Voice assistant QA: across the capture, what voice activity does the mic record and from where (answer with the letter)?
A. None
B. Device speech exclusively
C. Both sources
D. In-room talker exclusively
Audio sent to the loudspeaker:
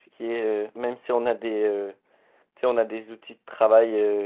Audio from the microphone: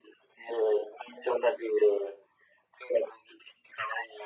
B